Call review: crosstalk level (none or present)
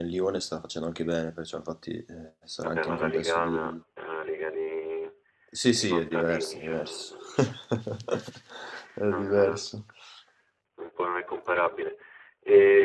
present